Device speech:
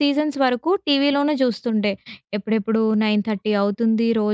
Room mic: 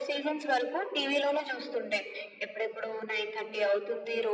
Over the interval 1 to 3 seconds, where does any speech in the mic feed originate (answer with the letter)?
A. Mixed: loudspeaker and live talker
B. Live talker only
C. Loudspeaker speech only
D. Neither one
C